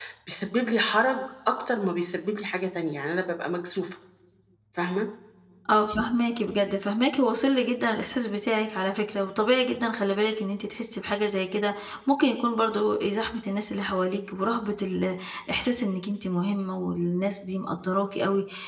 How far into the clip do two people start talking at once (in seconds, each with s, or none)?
none